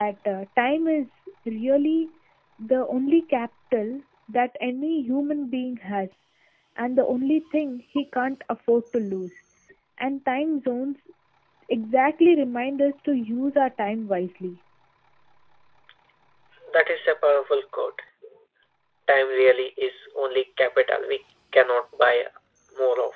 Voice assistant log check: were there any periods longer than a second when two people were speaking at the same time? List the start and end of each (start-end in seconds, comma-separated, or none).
none